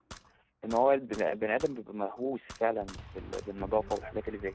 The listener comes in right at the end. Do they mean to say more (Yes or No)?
No